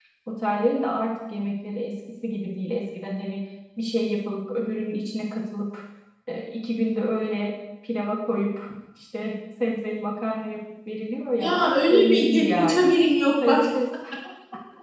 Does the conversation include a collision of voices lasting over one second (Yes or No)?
Yes